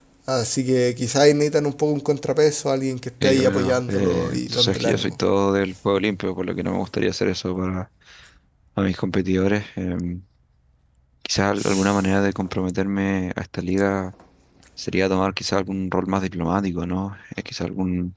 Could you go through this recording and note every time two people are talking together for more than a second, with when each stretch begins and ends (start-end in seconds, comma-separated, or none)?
3.2-5.2